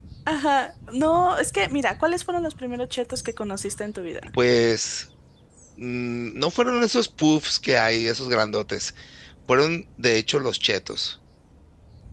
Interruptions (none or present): none